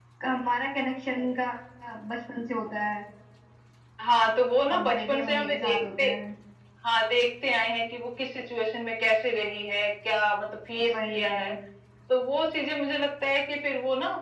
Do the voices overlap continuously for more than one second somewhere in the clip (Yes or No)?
Yes